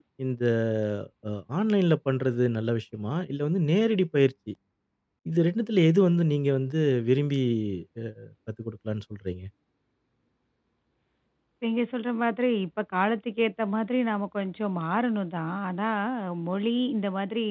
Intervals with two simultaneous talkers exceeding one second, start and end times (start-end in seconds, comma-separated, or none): none